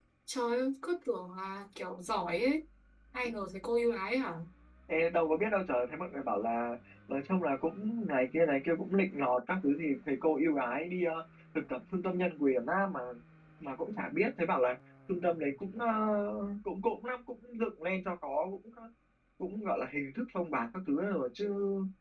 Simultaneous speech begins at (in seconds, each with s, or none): none